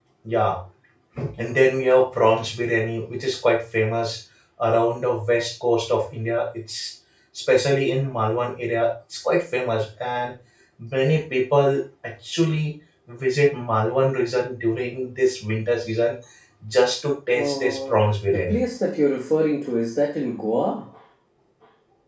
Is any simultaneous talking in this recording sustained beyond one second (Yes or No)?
Yes